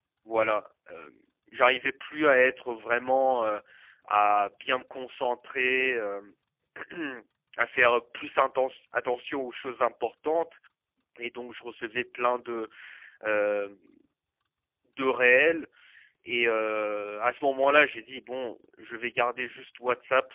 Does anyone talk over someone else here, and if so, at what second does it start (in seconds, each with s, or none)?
none